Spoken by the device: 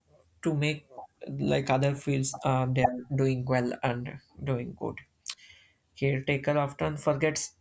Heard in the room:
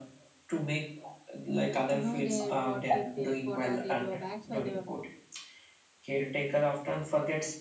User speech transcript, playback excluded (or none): know their what did they what are their drawbacks or the